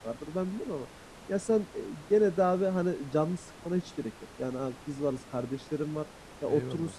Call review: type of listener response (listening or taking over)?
listening